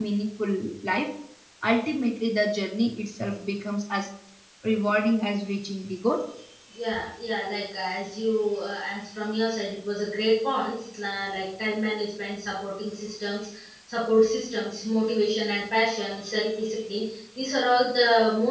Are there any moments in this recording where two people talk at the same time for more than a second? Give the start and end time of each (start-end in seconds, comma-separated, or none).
none